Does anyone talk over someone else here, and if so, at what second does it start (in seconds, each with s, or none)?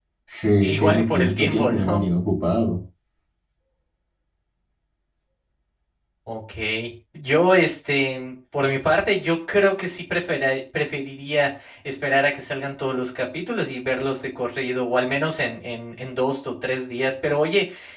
0.6 s